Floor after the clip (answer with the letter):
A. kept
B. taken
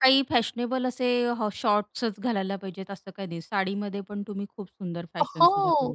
B